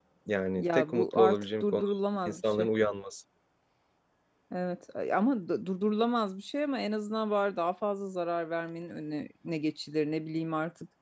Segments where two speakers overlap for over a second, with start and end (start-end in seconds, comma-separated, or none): 0.6-1.8